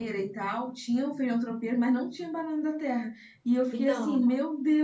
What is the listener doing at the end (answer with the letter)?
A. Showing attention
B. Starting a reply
A